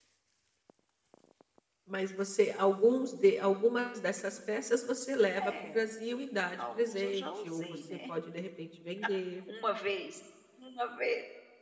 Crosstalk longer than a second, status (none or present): present